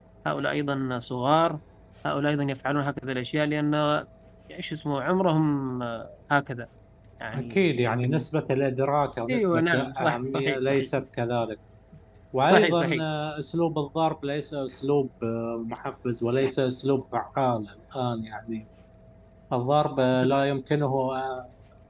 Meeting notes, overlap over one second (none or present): present